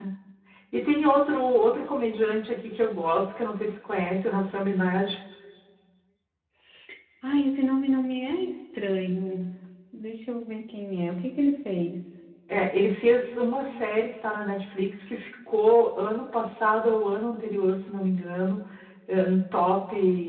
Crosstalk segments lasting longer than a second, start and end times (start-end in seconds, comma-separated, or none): none